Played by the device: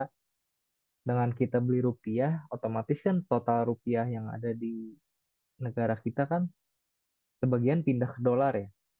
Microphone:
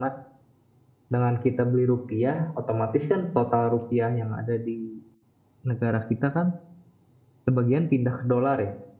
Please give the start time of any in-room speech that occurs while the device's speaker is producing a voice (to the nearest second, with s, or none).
none